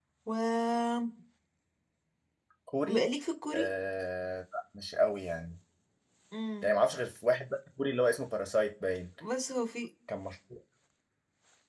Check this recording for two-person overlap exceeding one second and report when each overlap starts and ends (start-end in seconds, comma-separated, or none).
none